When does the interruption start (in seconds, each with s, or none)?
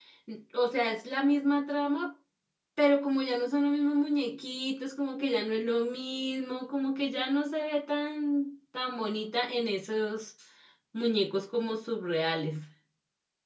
none